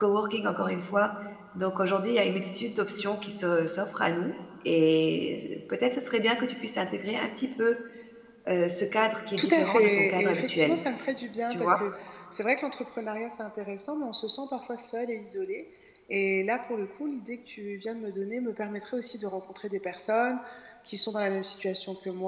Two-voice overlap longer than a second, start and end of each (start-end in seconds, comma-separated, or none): 9.4-10.8